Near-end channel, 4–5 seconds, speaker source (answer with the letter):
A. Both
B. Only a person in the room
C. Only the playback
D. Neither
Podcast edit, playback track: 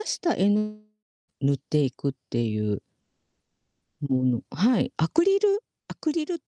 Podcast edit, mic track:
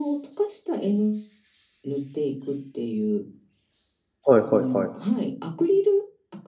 A